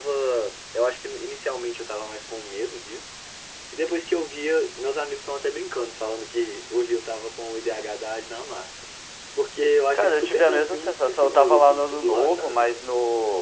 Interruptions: present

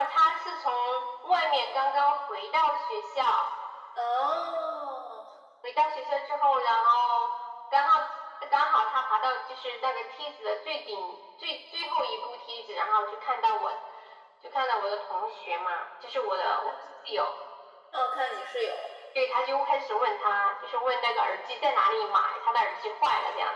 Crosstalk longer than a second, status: none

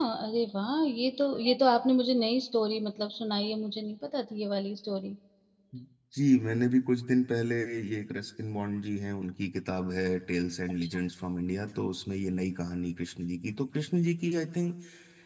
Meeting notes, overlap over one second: none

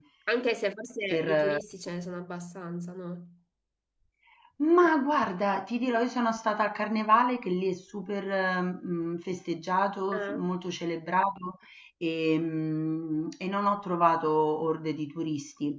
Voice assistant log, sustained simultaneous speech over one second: none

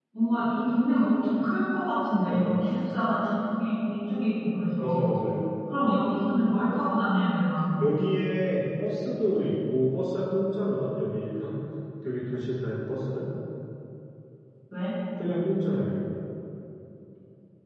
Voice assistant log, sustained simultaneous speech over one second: none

